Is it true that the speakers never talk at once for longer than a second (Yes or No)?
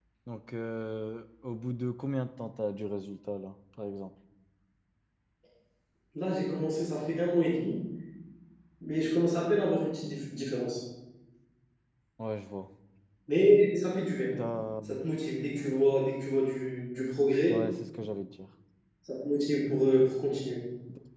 Yes